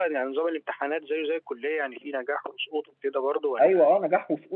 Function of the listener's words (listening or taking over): taking over